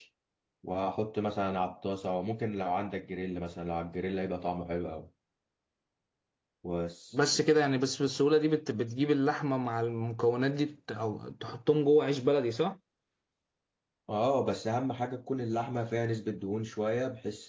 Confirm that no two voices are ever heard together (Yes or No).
Yes